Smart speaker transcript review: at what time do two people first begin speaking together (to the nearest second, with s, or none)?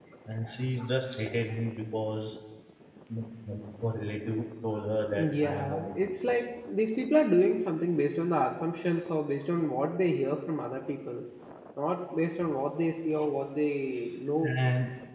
5 s